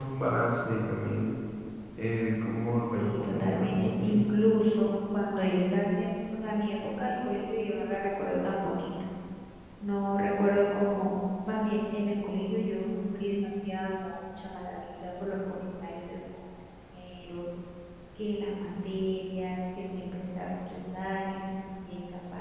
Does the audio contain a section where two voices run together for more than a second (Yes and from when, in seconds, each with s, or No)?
Yes, from 2.9 s